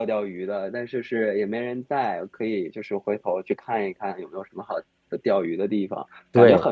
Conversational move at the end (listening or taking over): listening